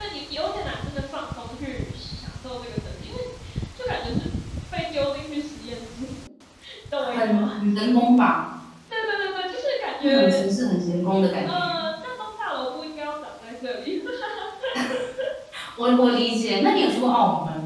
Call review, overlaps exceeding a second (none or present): none